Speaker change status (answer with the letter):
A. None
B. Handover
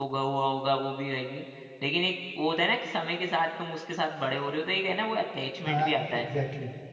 B